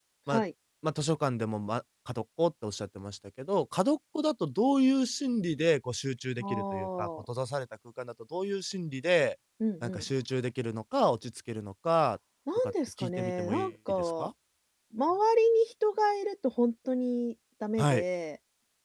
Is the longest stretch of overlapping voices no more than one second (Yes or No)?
No